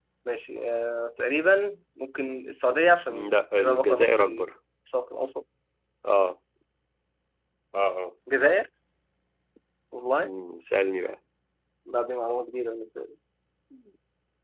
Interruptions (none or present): present